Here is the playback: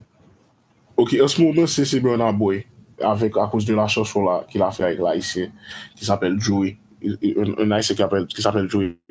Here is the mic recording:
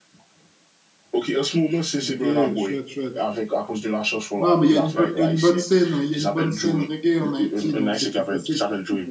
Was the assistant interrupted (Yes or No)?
Yes